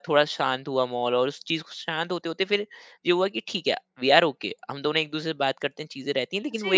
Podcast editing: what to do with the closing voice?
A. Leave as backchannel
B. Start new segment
B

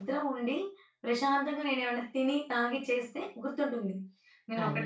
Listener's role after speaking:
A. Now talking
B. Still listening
A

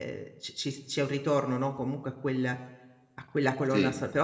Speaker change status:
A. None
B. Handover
A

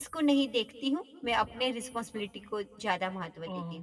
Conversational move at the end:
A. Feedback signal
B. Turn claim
B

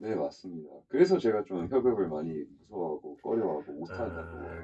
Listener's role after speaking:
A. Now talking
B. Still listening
A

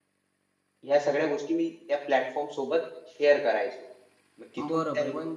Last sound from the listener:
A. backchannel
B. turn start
B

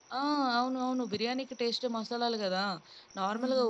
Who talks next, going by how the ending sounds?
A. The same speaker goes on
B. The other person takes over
A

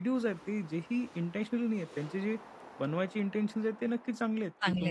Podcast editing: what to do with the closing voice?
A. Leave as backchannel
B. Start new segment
A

